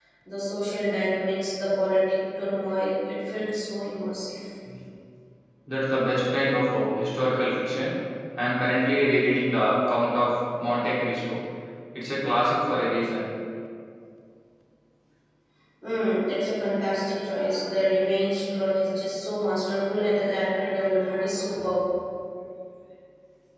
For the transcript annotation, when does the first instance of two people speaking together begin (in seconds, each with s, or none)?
none